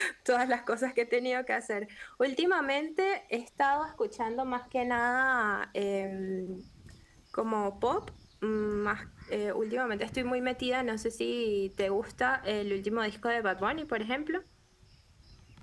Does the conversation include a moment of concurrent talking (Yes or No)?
No